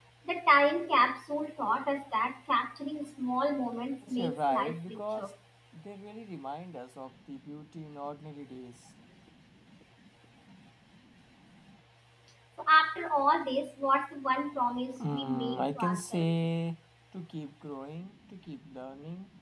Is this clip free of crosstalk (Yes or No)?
No